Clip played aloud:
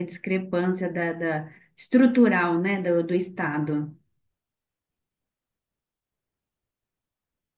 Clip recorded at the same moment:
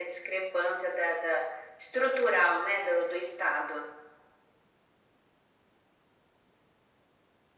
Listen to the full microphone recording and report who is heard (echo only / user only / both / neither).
echo only